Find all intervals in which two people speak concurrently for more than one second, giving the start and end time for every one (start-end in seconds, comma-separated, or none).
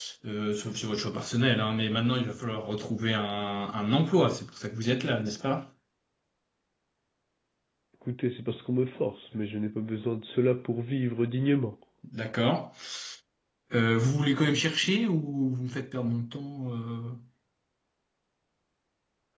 none